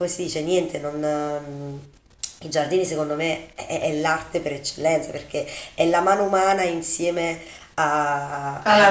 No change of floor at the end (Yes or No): Yes